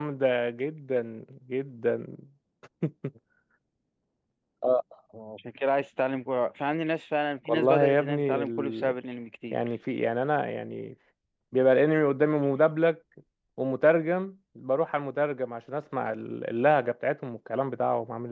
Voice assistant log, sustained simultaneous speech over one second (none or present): present